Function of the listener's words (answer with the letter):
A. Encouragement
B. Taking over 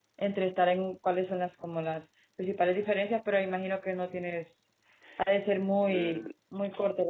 B